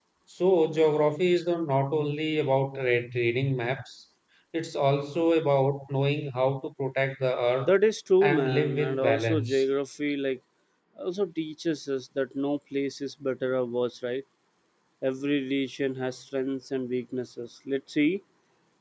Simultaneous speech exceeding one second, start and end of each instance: 8.2-9.6

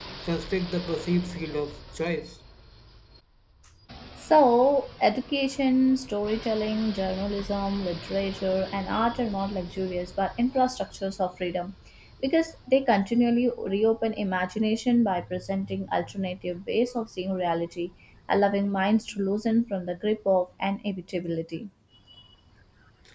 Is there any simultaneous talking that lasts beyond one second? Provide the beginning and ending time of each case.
none

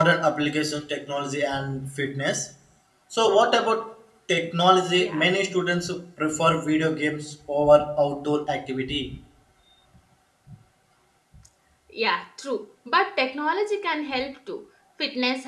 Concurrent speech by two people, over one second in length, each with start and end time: none

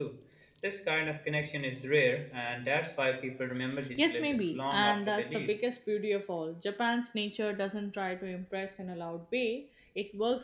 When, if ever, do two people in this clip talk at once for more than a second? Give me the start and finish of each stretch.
4.0-5.5

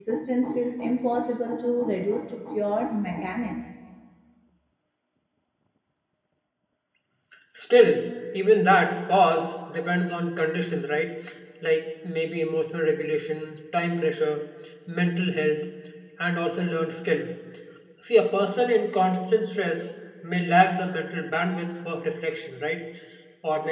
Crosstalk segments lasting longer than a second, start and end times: none

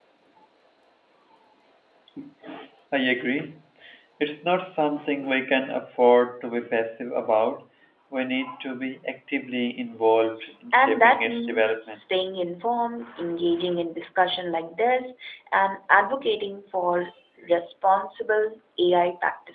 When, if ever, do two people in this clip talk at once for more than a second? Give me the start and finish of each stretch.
10.7-12.0

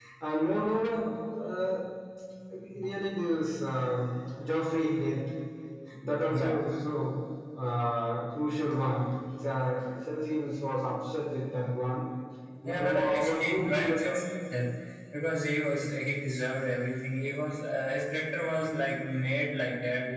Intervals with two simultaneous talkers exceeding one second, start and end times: 12.7-13.9

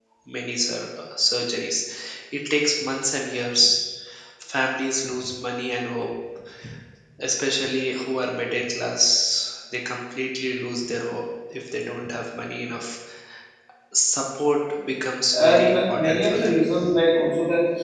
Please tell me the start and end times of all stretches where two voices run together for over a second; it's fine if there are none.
15.3-16.5

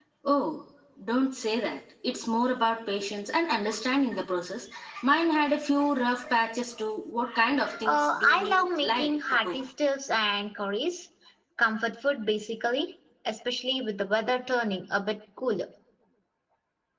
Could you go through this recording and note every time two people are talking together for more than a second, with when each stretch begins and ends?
7.8-9.6

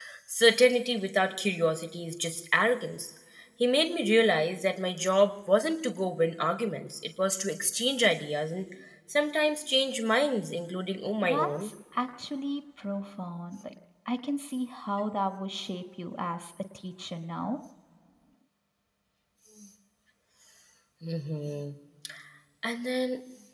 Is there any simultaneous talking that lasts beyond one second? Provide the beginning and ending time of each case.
none

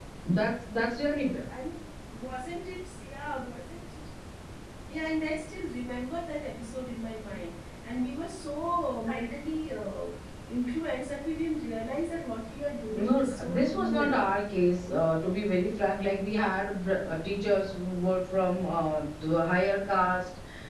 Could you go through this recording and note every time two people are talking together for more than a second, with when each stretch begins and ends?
12.9-14.2

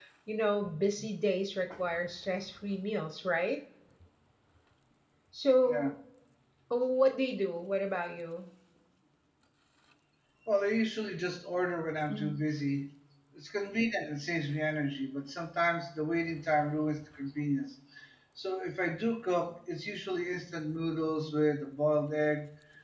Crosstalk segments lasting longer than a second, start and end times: none

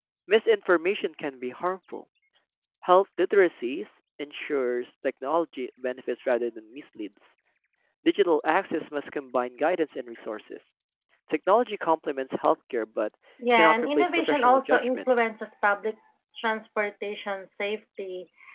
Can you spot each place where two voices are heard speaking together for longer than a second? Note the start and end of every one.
13.5-15.0

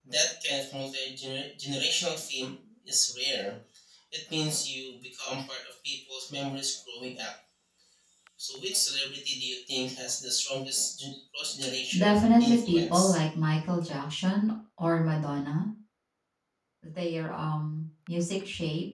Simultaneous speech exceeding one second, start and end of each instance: 11.9-13.2

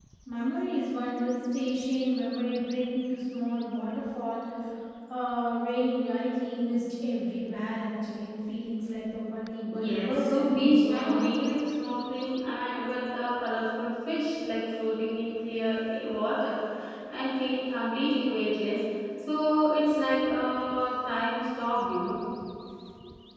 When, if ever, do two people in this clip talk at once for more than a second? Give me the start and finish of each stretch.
9.8-11.2

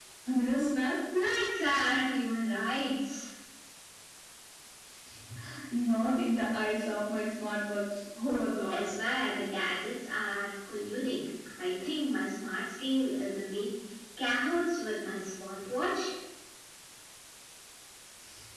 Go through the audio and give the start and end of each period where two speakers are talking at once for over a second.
none

